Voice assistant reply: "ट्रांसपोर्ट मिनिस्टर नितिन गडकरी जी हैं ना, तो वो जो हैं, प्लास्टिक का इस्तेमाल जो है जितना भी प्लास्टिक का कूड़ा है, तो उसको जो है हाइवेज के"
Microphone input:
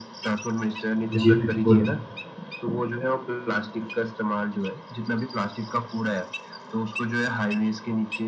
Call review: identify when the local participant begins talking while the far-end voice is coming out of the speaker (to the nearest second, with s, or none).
1 s